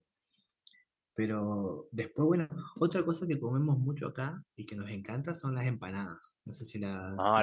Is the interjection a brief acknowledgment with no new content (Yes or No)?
No